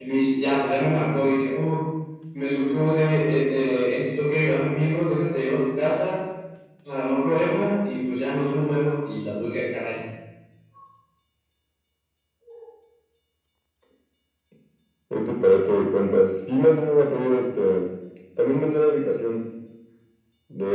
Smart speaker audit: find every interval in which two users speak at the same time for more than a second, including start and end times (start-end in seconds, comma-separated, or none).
none